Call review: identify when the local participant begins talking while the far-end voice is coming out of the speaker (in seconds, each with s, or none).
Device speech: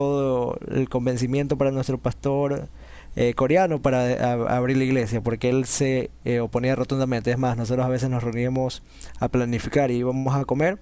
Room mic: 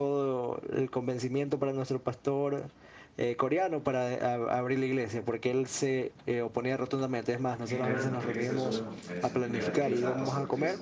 7.6 s